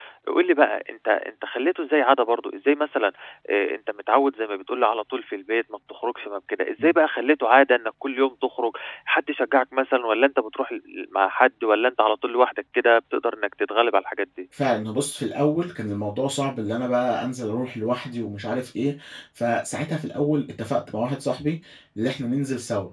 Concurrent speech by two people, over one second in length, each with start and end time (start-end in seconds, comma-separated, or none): none